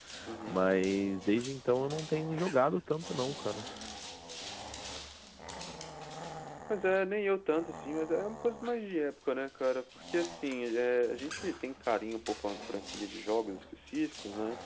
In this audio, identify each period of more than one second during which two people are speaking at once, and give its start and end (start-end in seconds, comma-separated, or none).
none